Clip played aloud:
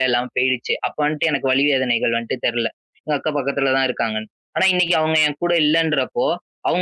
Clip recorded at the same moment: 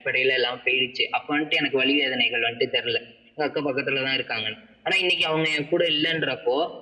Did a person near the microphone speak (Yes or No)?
No